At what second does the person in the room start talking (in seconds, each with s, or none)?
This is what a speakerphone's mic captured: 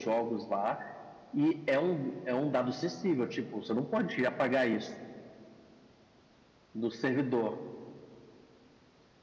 none